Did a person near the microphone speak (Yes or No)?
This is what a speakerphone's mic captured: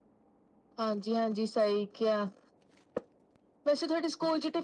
No